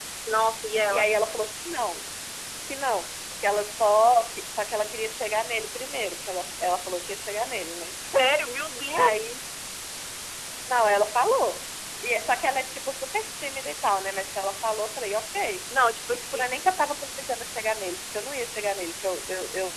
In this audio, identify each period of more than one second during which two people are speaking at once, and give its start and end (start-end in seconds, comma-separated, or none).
none